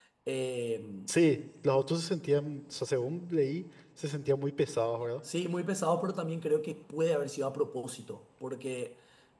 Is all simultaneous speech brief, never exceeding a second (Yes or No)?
Yes